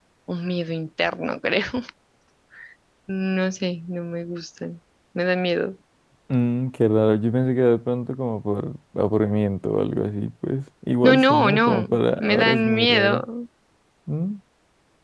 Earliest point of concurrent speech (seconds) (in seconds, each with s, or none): 11.0 s